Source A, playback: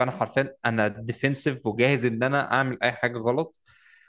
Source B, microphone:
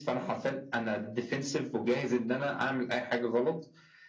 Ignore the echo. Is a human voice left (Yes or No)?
No